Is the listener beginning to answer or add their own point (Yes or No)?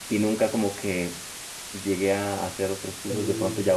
No